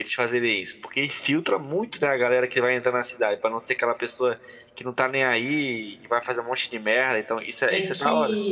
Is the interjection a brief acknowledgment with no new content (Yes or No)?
No